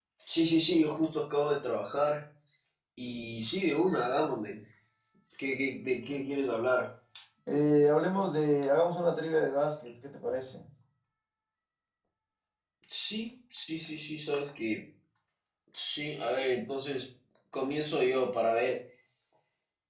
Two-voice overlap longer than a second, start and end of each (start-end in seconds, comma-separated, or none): none